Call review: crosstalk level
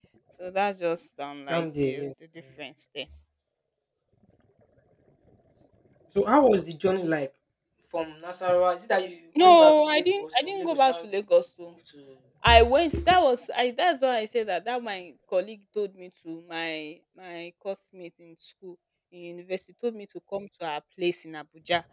present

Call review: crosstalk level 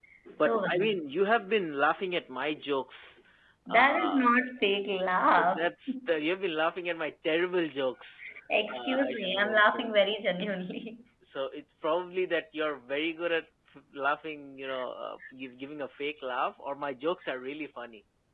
present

